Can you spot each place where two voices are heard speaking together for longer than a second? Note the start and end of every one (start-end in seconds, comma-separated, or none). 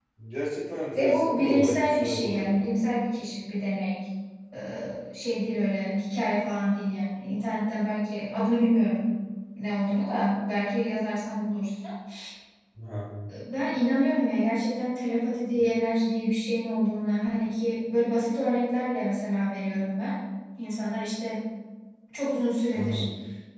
0.9-2.7